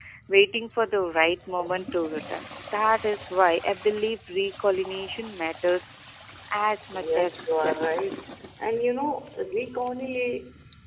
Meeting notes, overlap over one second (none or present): present